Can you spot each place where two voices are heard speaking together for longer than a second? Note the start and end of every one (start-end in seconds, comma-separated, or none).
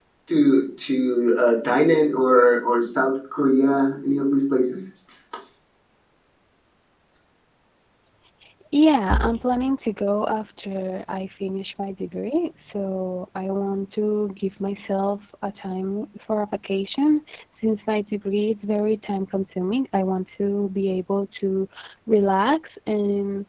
none